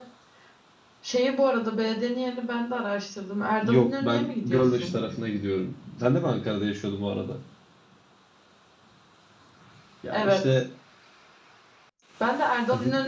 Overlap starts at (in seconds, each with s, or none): 3.6 s